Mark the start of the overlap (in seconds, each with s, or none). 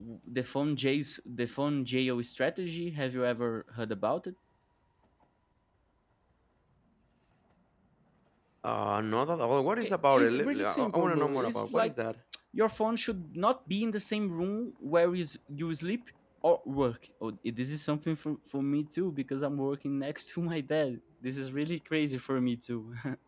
9.8 s